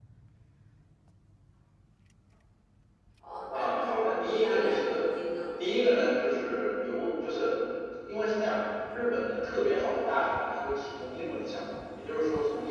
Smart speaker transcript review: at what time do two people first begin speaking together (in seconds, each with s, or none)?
3.5 s